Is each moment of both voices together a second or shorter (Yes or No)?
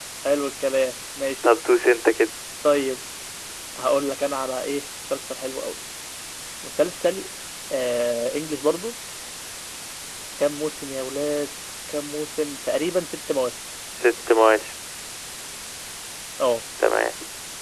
Yes